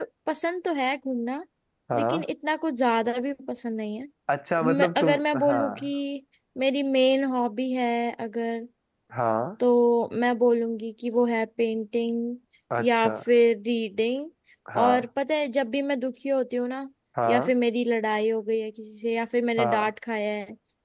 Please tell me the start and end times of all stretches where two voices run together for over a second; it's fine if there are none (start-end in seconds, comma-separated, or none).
4.6-5.9